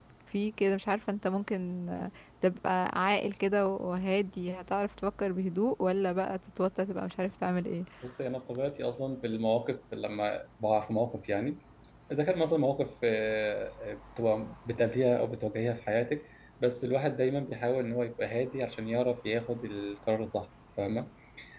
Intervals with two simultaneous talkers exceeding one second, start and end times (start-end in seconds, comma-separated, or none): none